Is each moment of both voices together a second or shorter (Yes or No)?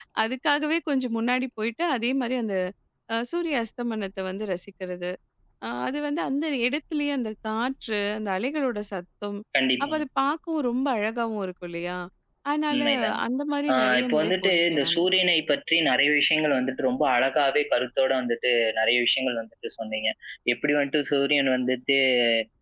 No